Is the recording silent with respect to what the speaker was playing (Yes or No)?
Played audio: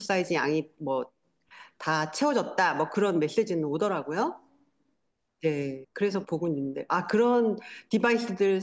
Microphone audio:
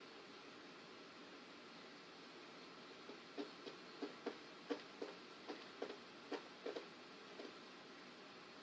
Yes